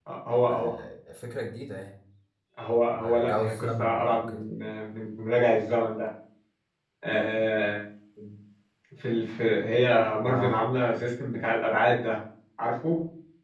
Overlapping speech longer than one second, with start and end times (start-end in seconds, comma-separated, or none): 2.9-4.4